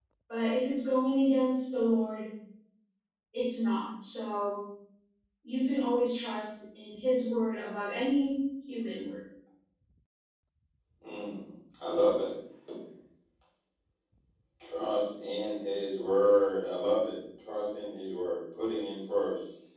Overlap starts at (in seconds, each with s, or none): none